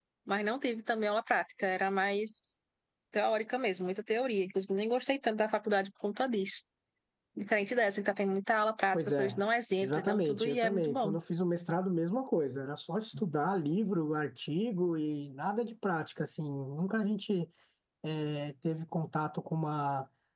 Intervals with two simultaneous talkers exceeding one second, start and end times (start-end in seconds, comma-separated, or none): 9.8-11.2